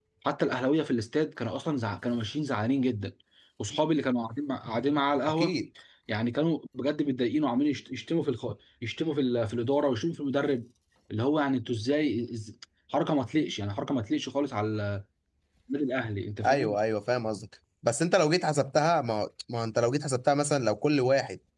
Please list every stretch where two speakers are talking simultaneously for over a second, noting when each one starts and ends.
none

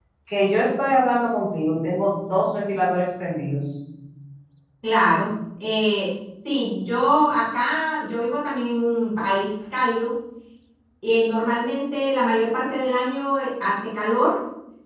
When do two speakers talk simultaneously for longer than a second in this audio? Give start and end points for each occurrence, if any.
none

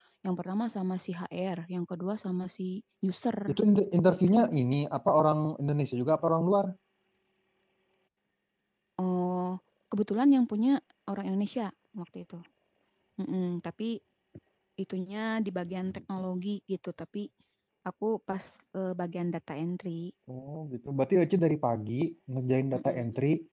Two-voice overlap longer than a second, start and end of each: none

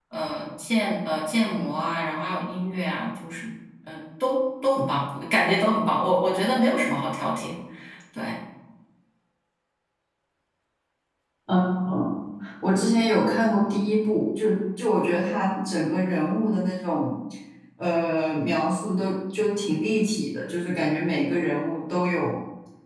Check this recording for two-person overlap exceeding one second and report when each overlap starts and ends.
none

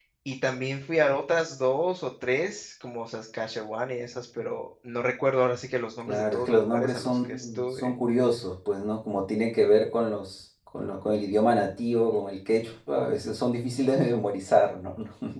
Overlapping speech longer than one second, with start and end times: 6.1-7.9

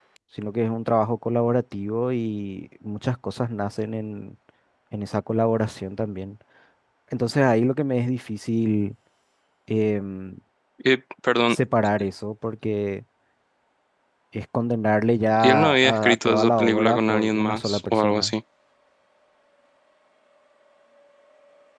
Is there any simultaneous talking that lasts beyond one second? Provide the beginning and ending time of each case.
15.4-18.3

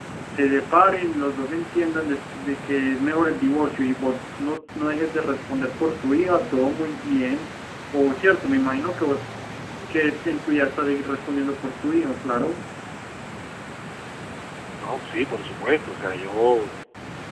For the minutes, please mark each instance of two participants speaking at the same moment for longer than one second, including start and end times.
none

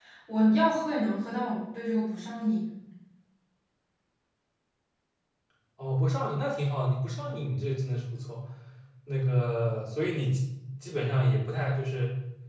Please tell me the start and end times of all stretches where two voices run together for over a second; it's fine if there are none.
none

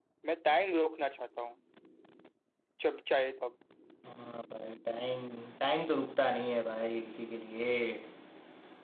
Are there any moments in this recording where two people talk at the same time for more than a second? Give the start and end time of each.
none

